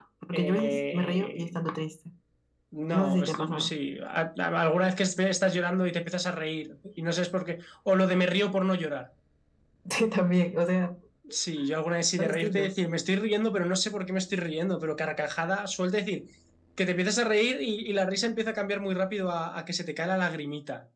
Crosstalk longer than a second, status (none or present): present